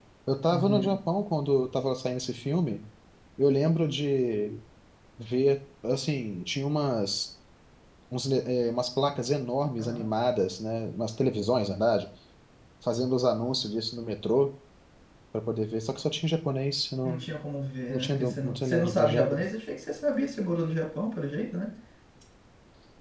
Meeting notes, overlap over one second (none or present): present